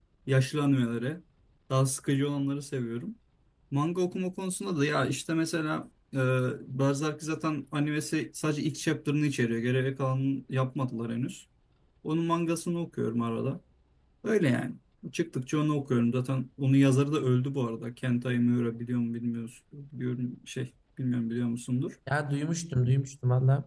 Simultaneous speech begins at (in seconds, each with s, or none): none